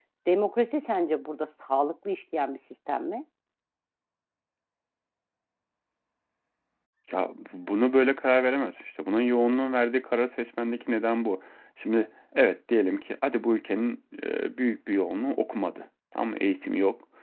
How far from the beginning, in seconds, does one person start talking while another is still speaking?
none

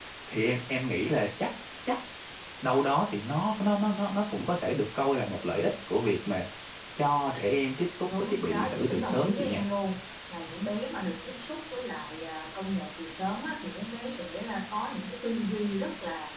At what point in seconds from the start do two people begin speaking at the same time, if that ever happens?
8.1 s

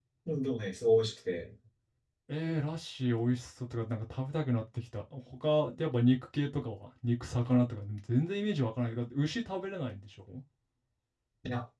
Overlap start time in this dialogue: none

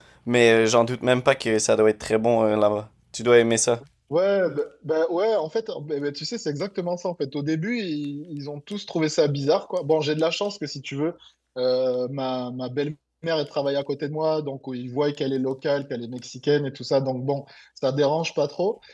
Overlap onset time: none

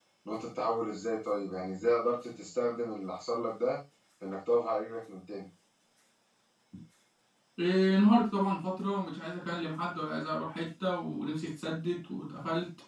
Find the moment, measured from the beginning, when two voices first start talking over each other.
none

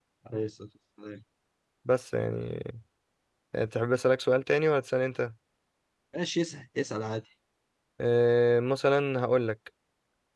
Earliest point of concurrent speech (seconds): none

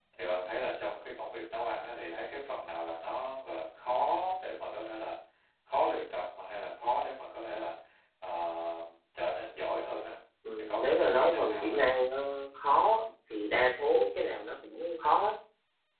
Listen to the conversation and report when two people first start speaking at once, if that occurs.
10.6 s

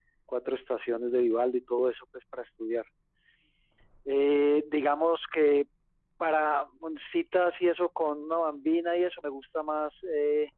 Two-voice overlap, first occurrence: none

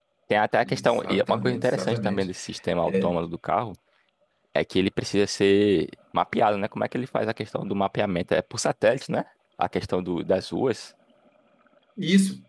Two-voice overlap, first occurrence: 0.6 s

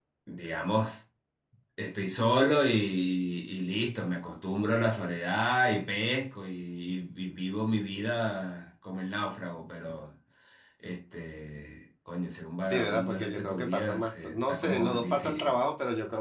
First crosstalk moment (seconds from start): 12.6 s

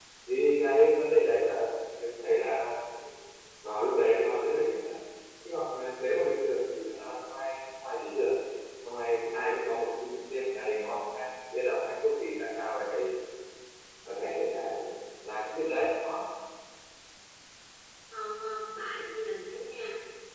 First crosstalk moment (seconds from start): none

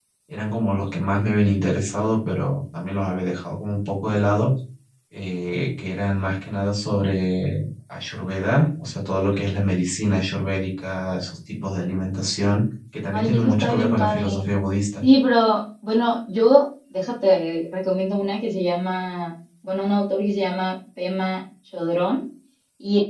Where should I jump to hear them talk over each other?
13.1 s

